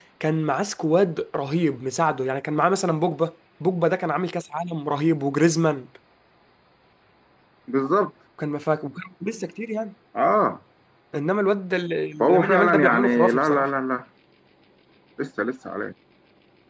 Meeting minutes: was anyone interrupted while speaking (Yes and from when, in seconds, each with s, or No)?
Yes, from 12.2 s